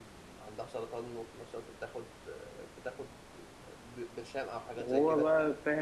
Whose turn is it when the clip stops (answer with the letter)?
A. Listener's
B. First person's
A